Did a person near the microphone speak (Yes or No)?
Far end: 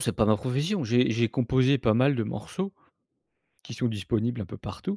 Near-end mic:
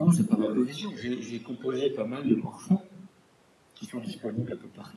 No